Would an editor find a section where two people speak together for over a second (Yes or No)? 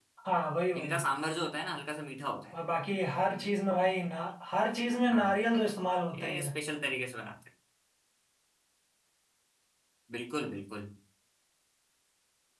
No